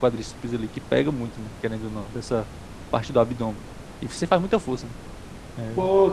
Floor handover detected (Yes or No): Yes